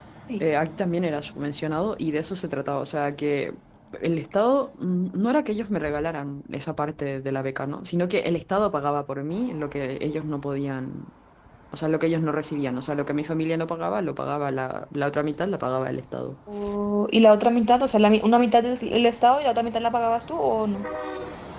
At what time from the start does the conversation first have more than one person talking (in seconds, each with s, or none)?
none